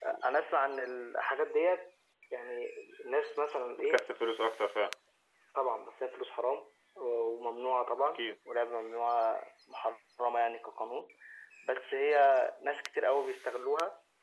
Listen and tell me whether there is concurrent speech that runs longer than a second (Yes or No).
No